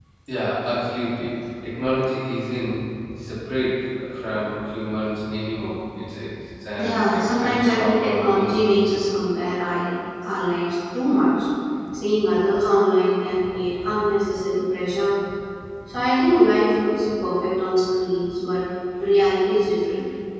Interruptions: present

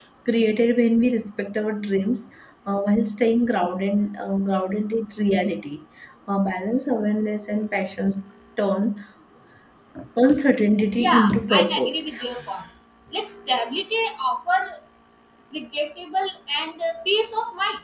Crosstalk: present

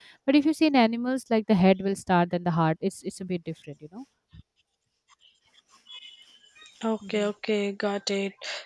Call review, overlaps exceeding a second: none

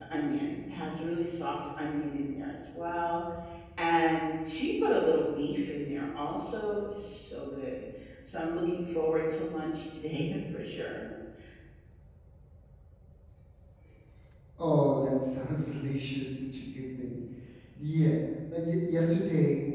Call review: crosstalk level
none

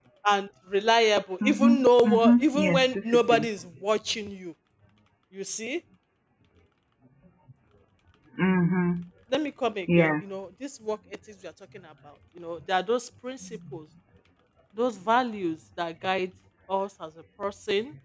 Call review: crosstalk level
present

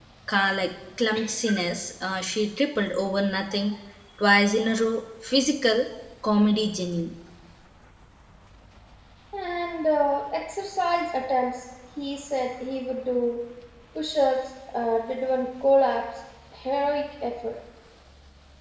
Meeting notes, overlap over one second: none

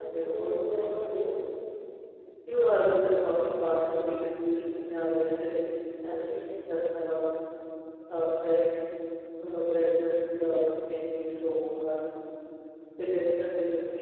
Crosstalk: present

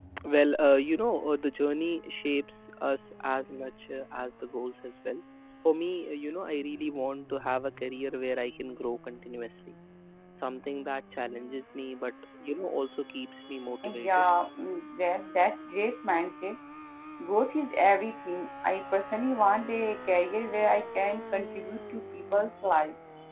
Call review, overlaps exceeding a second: none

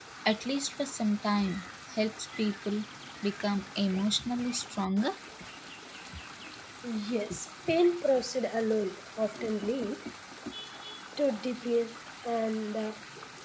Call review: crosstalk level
none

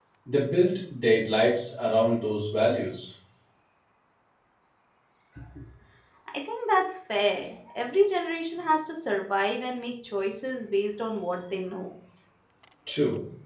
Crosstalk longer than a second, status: none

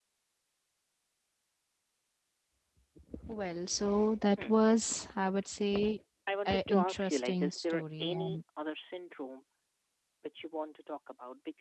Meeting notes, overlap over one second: present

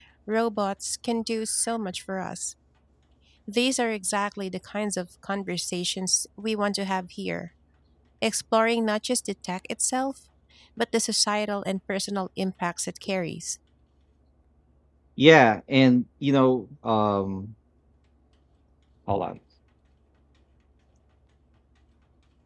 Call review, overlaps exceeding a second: none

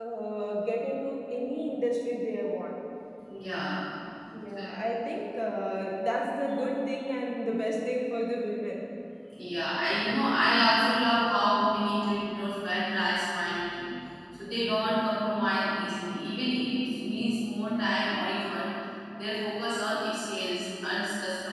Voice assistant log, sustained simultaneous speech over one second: none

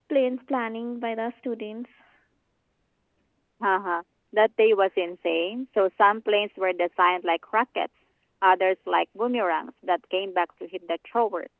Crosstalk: none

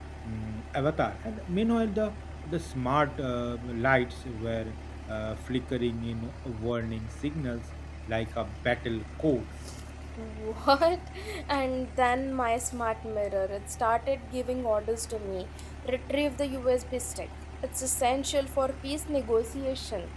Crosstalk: none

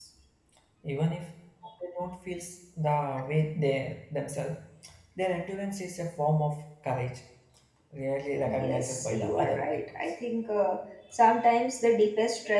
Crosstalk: present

